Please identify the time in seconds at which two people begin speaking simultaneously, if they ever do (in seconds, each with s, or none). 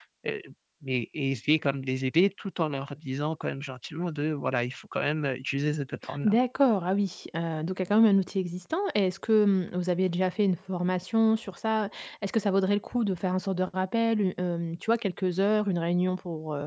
none